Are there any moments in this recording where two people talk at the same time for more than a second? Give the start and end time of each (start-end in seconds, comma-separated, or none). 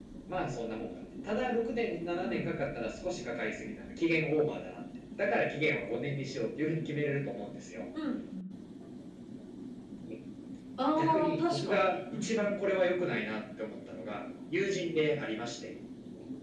11.0-12.5